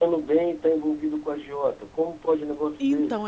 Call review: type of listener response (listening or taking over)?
taking over